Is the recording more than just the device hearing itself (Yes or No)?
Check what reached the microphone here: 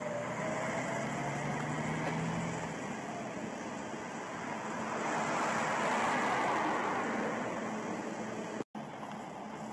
No